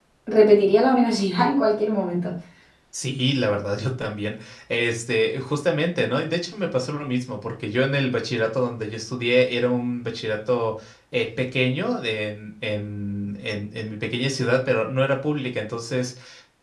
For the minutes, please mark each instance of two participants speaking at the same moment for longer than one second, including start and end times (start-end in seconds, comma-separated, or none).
none